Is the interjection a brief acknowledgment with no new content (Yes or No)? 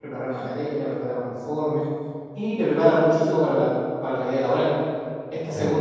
Yes